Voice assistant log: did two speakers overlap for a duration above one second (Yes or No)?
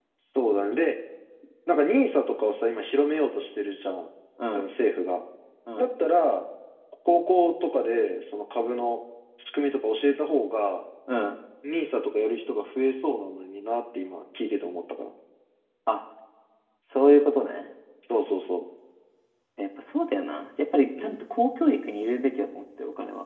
No